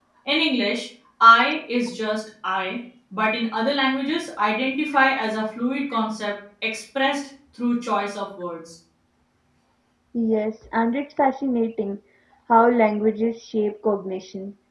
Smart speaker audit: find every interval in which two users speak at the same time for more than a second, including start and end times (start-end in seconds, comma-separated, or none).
none